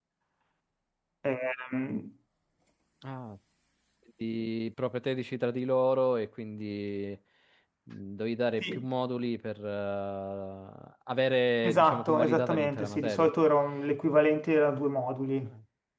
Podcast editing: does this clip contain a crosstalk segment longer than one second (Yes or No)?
Yes